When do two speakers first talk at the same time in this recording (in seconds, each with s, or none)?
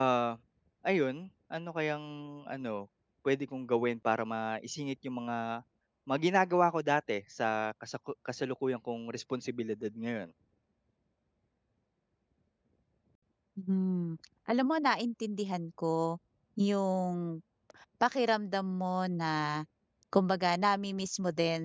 none